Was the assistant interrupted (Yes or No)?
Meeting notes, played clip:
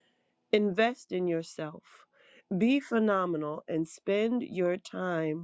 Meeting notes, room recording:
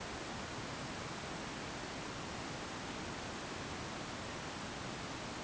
No